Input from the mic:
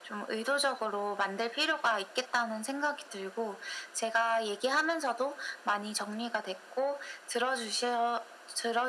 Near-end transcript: none

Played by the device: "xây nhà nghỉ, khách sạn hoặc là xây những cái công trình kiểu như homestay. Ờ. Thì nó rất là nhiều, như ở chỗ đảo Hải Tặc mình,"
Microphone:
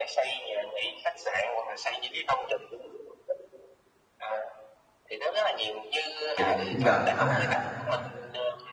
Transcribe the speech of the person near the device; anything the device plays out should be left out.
Vậy là chắc cũng gần đó ha.

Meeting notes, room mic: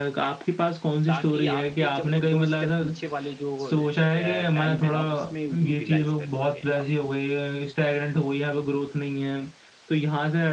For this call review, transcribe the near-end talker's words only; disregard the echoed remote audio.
ताकि आपकी जब वो 2 स्टेप पीछे वाले जो अ, टाइम है ना, उसमें वो यूटिलाइज़ कर सकें आप।

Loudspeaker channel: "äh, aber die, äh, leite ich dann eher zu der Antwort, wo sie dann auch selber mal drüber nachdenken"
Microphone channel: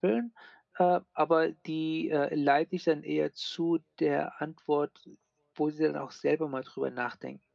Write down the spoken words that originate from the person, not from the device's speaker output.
none

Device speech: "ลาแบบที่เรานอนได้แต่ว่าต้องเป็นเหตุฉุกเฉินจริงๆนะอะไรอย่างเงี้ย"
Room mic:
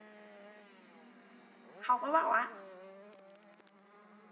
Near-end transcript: เขาก็บอกว่า

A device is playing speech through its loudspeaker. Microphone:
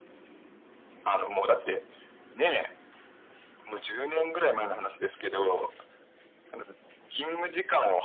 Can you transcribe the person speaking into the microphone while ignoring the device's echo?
none

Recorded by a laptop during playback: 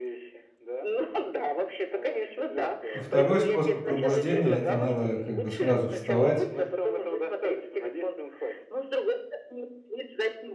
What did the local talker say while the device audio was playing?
А 2 способ пробуждения- это надо как бы сразу вставать

